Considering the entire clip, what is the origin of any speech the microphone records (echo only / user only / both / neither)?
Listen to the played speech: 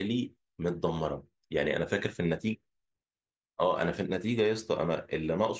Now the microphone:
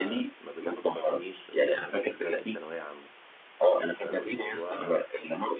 both